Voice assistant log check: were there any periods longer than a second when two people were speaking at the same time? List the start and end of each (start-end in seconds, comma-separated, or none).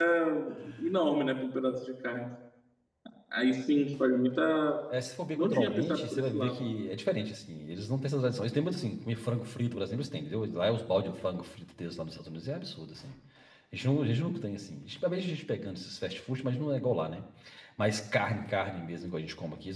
5.3-6.7